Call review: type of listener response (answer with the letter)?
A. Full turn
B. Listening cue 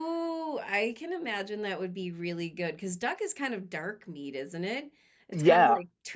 B